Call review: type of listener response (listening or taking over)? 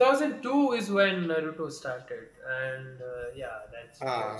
listening